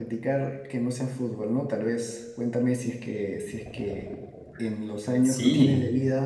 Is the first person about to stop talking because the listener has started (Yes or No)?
No